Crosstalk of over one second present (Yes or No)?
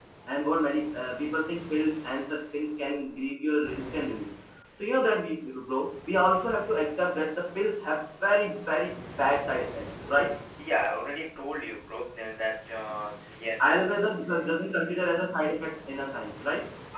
No